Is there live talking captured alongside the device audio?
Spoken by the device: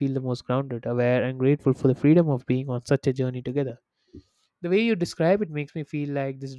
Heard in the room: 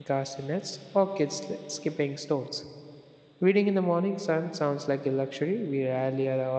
Yes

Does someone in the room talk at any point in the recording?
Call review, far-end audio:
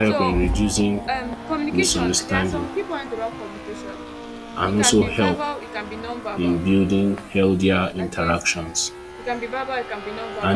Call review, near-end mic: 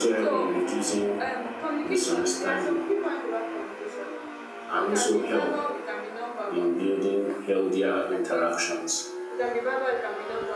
No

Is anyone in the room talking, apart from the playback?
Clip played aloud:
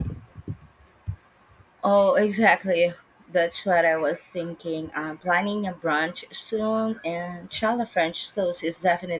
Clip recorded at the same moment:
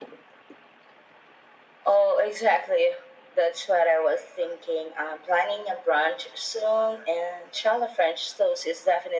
No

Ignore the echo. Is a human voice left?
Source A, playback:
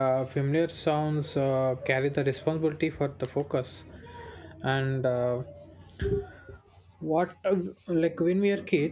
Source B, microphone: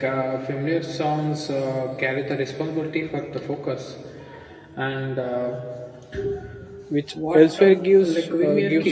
Yes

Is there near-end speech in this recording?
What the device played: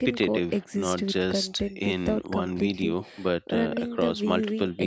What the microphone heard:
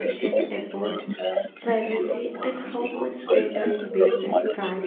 Yes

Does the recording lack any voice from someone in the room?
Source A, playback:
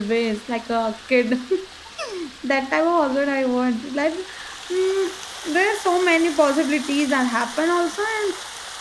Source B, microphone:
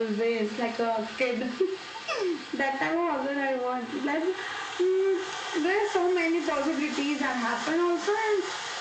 Yes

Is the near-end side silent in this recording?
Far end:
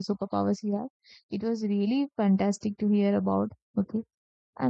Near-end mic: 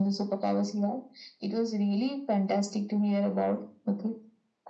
Yes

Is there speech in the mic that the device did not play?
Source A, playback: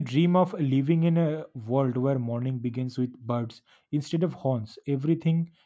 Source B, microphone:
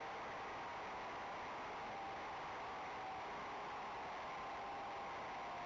No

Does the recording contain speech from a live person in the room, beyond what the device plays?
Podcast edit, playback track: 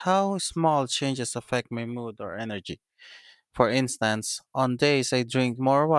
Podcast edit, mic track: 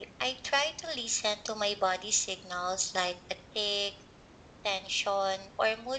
Yes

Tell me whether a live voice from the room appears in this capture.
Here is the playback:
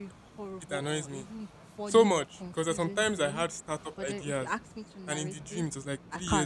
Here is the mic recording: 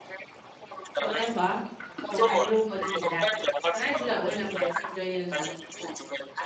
Yes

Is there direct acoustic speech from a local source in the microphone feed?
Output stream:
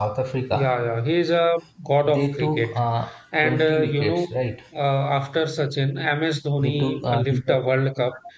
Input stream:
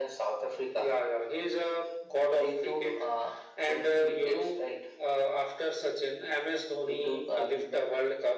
No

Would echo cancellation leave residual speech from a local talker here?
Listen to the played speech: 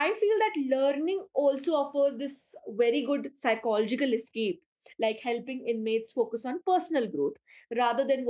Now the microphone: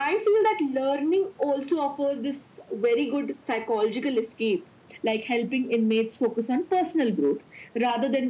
No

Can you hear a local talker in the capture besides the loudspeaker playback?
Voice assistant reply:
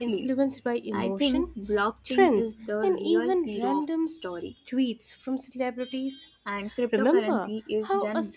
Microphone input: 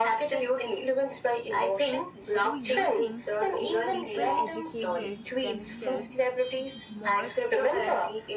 Yes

